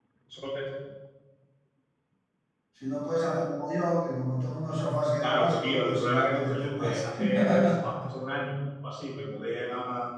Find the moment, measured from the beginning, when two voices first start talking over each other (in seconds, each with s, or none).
5.2 s